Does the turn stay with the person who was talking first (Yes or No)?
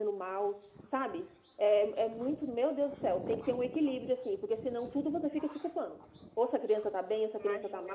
Yes